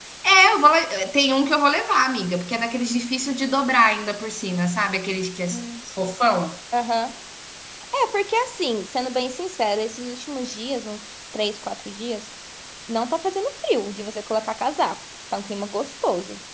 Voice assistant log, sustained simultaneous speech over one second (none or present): none